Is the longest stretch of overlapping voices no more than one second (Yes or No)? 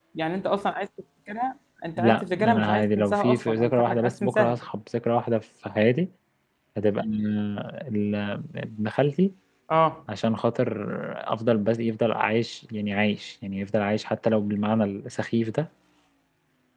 No